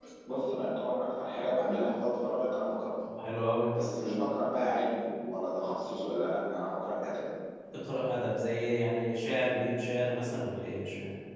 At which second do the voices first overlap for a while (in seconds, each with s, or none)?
none